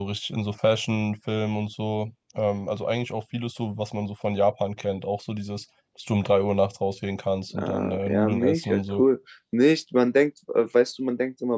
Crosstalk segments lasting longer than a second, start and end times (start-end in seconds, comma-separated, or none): 7.6-9.0